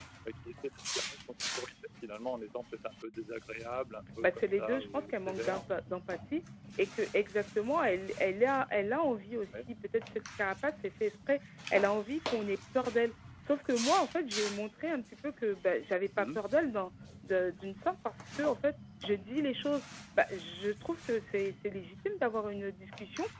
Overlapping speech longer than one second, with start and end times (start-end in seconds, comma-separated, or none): 4.2-5.6